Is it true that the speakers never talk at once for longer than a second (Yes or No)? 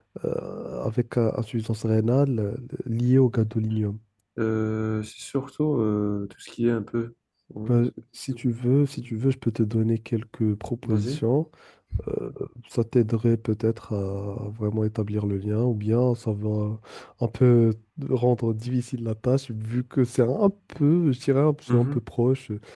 Yes